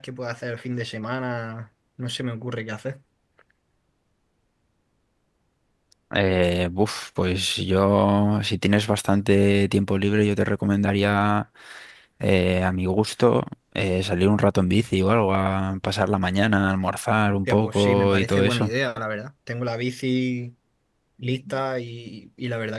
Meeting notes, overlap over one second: present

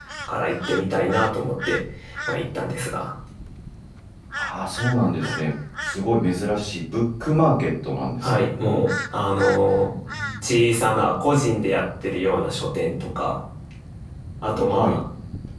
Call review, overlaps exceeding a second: none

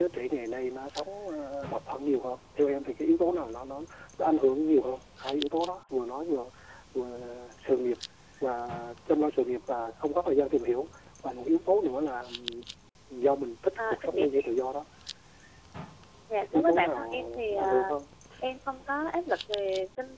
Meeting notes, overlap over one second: present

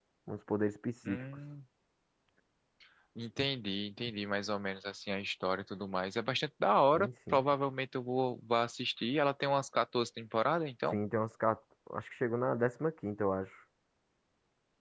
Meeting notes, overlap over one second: none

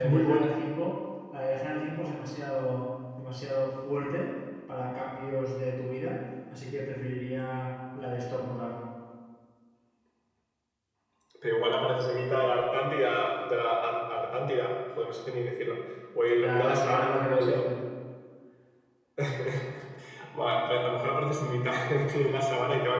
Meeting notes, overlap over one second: present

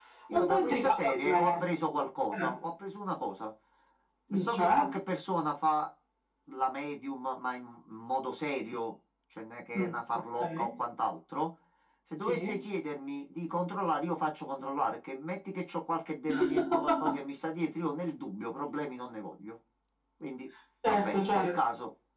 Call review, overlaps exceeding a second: present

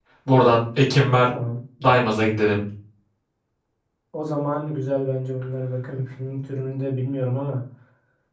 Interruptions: none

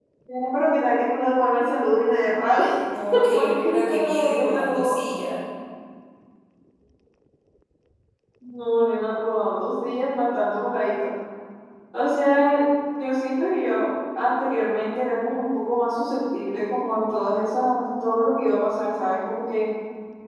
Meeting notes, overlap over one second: present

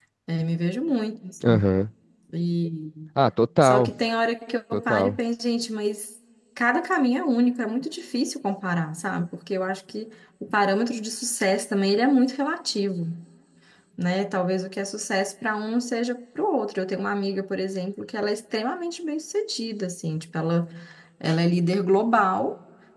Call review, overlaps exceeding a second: none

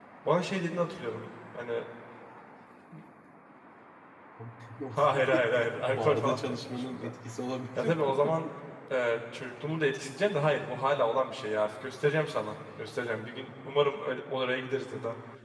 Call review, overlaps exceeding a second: present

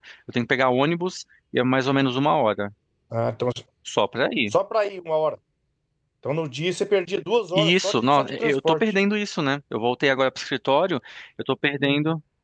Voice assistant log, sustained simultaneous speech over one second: present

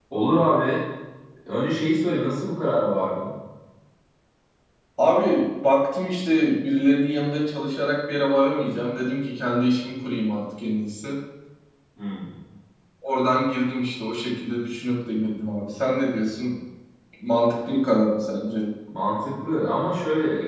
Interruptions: none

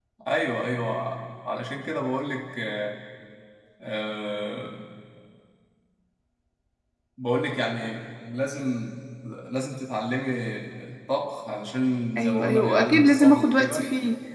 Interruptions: present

